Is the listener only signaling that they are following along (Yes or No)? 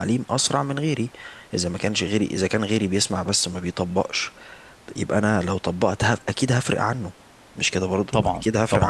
No